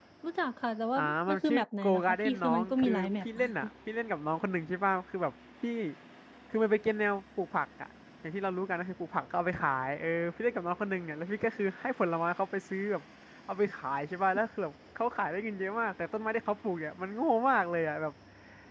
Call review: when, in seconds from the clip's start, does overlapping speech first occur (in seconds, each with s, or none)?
1.0 s